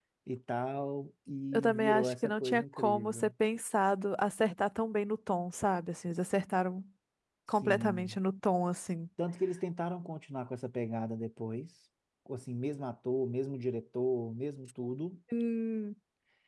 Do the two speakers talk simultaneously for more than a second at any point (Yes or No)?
Yes